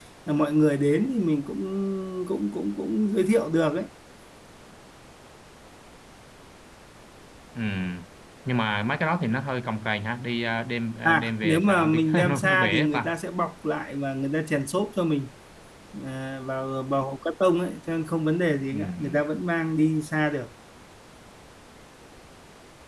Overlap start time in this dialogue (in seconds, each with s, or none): 11.0 s